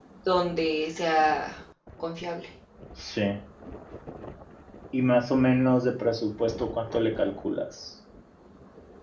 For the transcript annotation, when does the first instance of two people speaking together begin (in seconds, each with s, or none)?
none